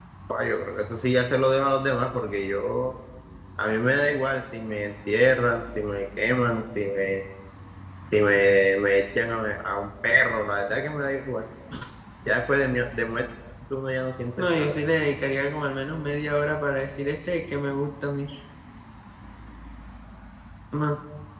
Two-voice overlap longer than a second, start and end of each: none

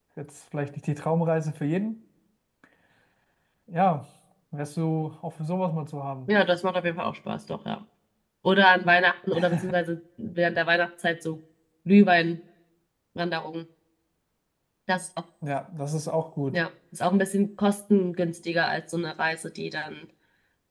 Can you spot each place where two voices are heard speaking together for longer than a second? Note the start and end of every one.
none

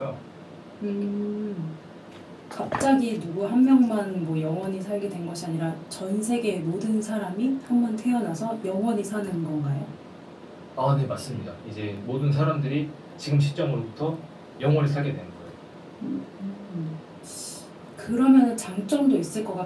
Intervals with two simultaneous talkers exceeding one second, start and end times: none

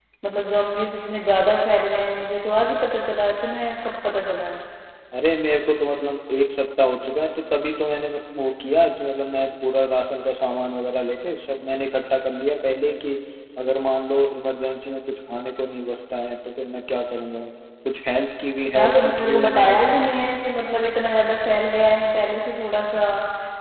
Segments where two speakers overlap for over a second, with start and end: 18.8-20.1

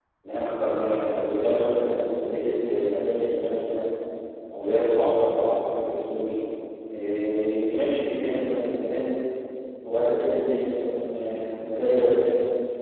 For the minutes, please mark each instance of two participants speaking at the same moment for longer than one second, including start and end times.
none

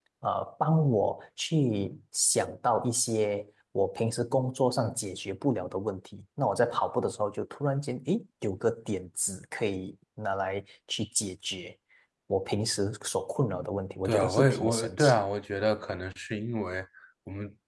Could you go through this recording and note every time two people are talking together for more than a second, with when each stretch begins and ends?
14.1-15.3

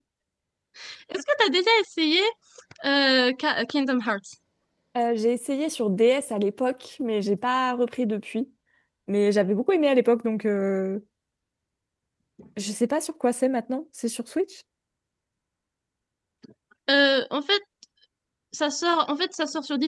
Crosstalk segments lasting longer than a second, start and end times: none

